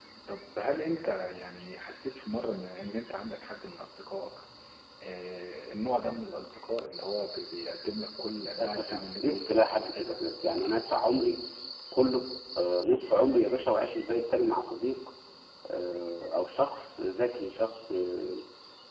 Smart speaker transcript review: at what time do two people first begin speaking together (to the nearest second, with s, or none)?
9 s